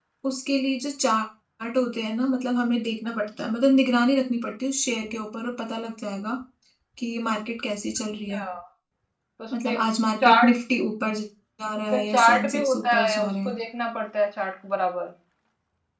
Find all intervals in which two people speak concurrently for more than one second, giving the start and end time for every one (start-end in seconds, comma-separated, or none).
11.9-13.5